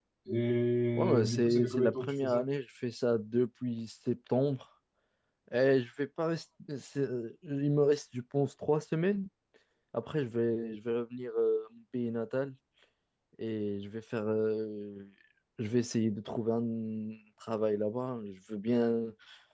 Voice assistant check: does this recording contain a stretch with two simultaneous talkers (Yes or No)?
Yes